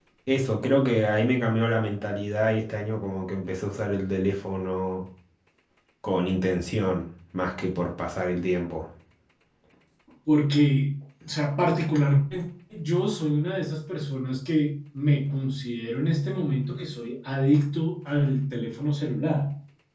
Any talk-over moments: No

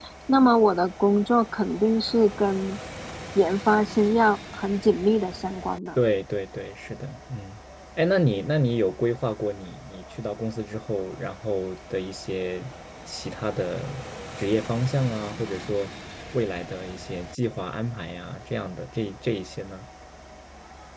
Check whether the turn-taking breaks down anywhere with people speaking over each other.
No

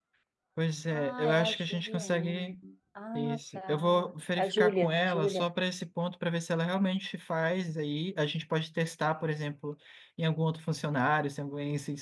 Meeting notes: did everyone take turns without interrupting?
No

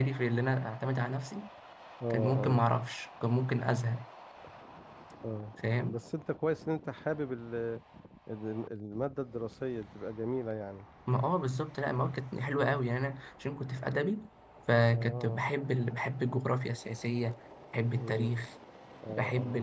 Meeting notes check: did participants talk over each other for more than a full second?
No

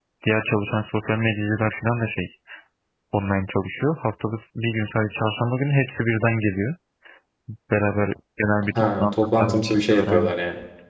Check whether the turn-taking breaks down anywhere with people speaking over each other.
Yes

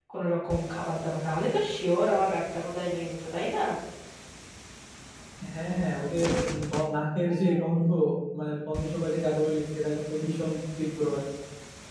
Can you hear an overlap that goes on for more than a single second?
No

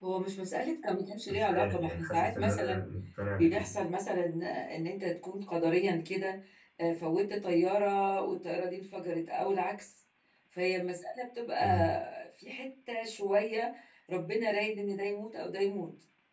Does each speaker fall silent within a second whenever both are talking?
No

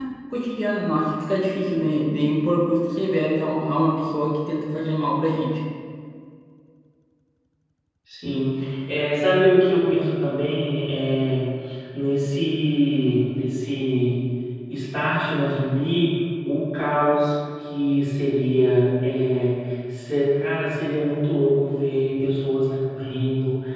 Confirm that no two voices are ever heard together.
Yes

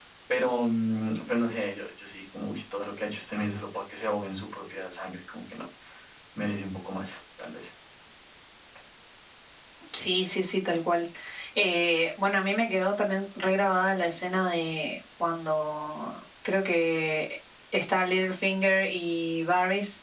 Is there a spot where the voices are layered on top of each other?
No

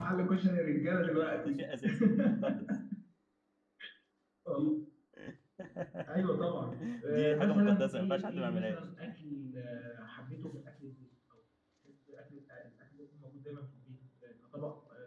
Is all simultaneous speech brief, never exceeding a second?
No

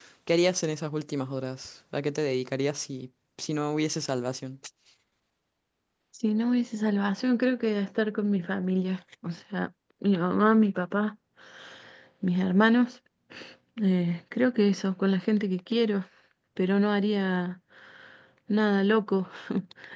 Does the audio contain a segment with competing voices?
No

